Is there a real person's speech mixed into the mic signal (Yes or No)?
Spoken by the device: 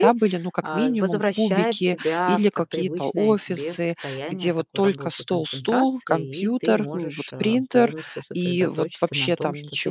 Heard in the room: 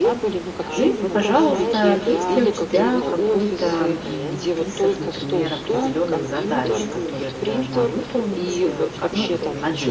Yes